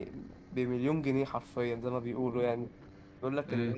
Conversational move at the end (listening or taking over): listening